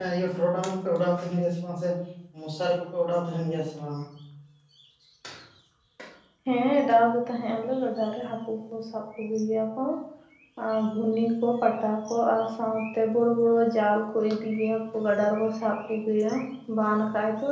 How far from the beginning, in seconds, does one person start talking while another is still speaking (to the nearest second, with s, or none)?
none